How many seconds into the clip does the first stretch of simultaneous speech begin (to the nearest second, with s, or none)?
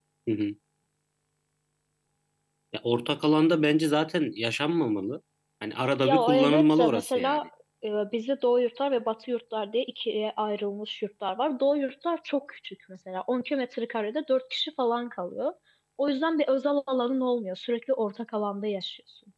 6 s